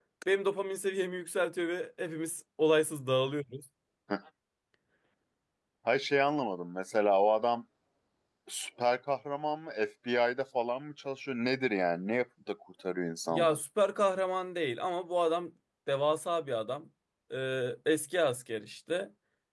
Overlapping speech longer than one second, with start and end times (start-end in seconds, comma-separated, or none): none